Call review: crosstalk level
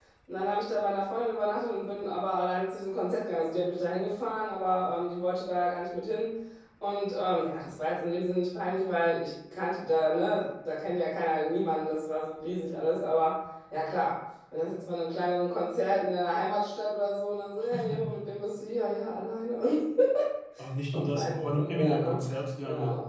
present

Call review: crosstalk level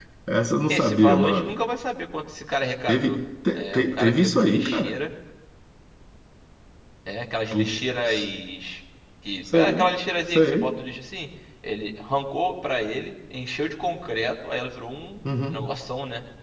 present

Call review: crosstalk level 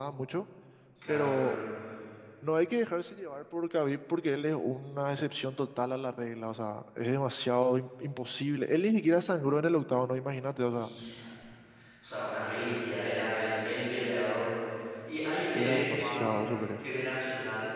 present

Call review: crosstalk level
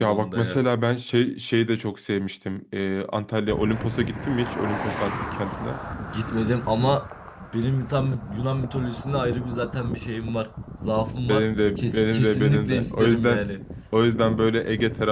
present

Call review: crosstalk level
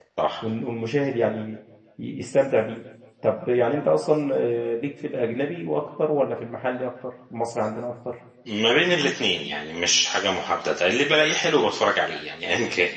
none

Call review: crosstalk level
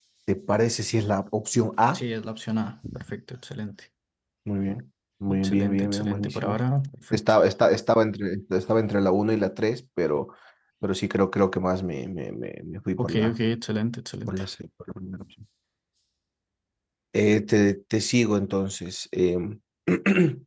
present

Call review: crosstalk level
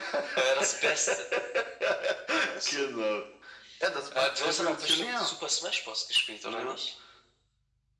present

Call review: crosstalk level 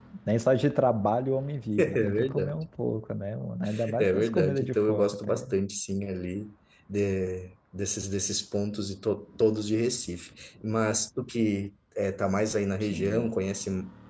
present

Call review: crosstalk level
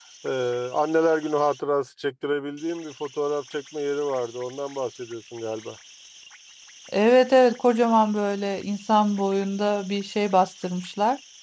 none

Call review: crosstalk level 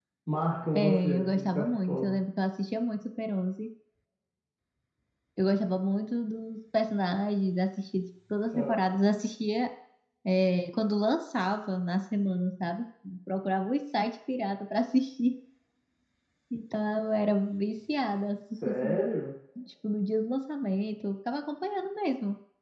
present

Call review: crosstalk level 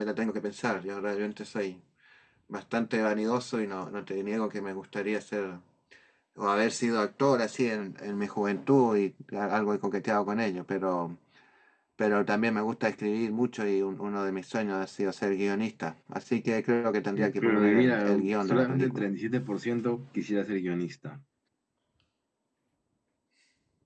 present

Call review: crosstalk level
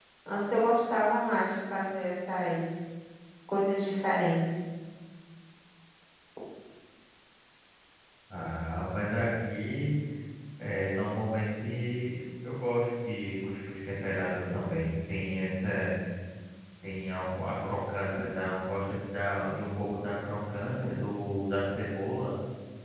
none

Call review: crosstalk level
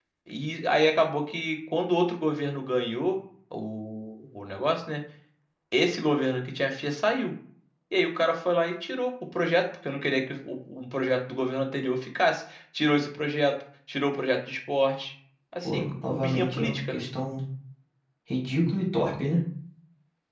present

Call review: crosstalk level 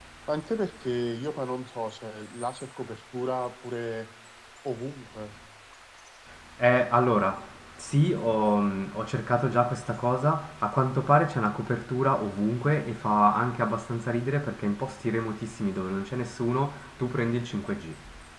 none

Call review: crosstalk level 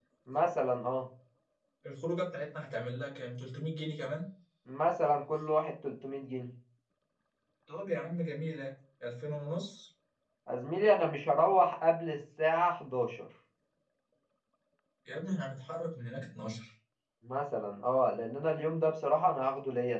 none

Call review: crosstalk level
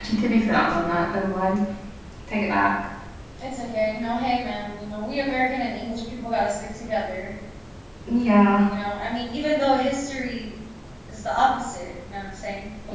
none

